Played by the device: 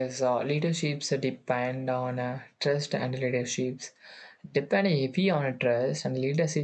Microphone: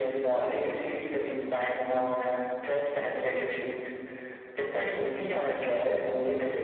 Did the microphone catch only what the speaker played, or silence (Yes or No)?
Yes